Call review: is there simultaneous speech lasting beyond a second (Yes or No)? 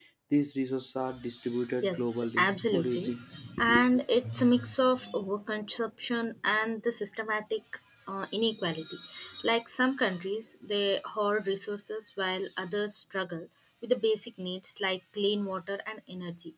Yes